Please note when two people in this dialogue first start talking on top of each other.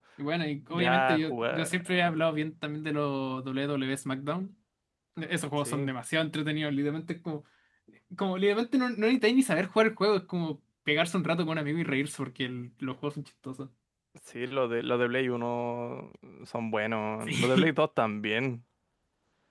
0.7 s

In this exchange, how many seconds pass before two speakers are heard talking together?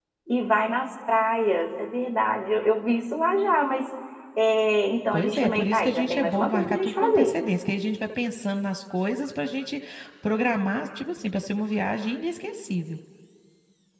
5.1 s

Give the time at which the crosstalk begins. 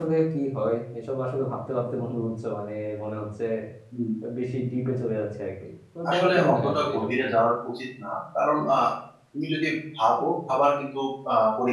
6.0 s

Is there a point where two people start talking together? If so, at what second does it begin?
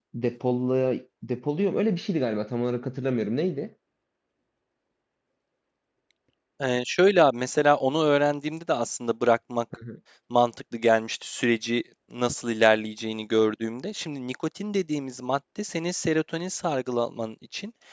none

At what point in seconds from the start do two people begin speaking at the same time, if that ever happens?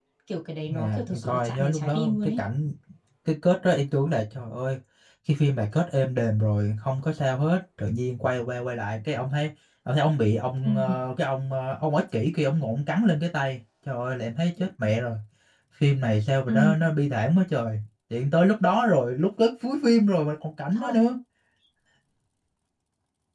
0.7 s

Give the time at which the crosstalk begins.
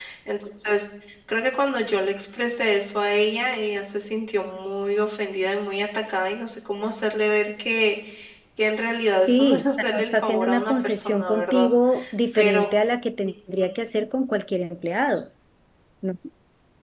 9.2 s

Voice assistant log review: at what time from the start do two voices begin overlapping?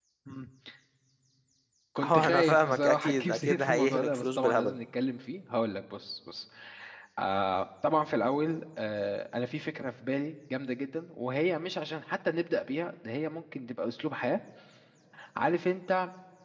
2.0 s

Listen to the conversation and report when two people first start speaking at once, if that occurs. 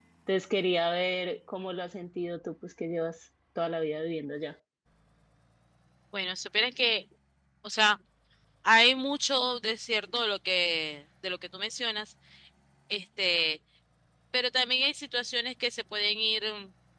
none

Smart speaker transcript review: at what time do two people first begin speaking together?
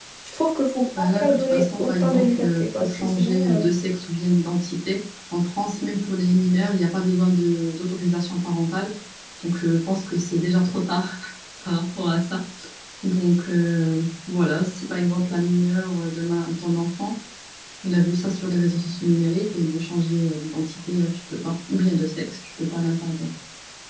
1.0 s

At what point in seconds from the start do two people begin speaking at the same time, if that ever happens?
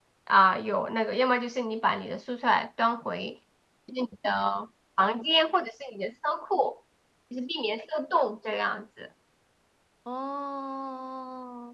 none

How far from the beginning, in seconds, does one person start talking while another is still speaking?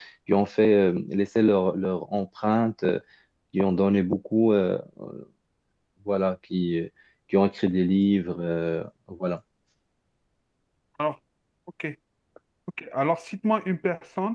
none

